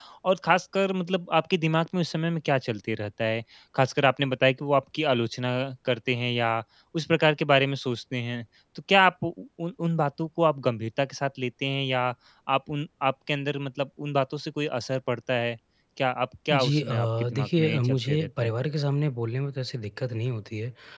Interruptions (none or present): present